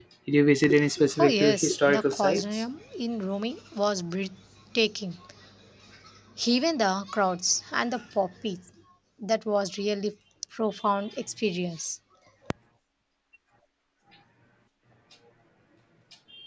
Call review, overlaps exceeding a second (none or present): present